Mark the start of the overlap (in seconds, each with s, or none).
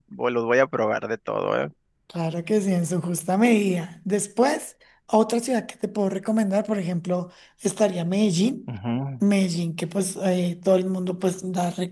none